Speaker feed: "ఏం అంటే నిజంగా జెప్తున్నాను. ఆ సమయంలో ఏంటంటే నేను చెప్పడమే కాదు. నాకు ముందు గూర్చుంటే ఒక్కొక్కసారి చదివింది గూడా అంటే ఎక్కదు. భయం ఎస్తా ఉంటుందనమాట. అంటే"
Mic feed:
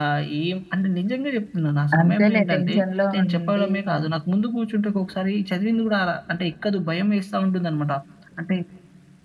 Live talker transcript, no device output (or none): అంతేలే. టెన్షన్‌లో ఉండి. అవును.